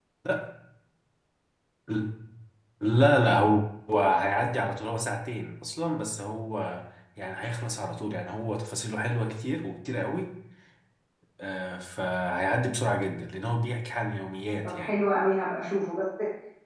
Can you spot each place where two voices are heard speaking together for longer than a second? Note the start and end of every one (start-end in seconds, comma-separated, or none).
none